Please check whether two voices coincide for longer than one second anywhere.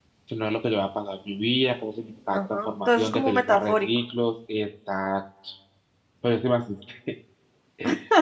Yes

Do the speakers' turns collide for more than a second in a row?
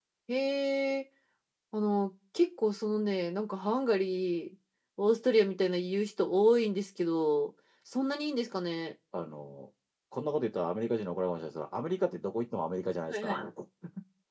No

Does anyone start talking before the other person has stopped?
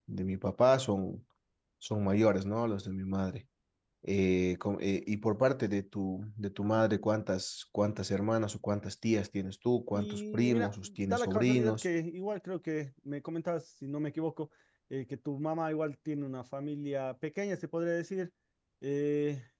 Yes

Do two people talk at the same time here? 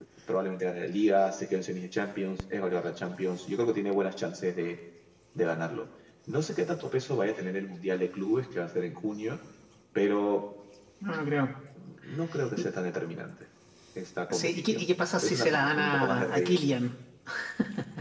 Yes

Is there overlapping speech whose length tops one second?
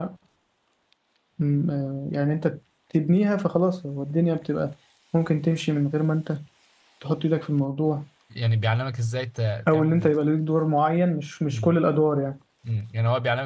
No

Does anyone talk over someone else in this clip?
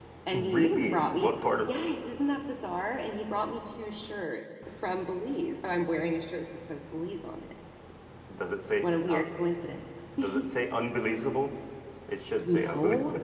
Yes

